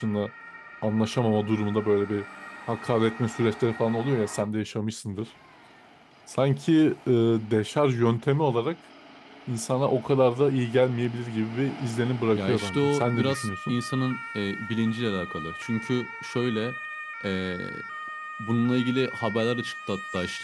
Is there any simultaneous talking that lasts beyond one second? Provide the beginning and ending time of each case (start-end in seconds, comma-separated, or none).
12.3-13.8